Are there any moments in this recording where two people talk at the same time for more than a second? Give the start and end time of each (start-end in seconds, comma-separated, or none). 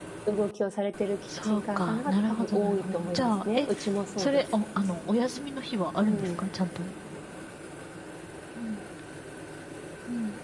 1.4-3.7